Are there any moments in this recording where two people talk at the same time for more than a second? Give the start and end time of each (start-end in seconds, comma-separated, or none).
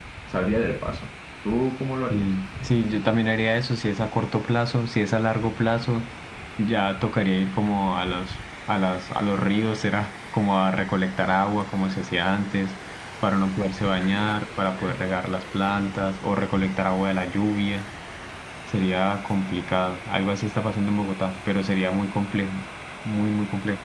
none